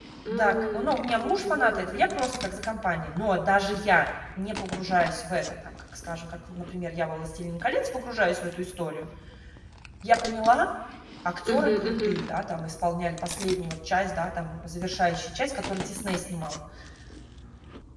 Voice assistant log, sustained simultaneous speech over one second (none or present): present